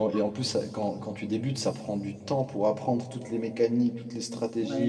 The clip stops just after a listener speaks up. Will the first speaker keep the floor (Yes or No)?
No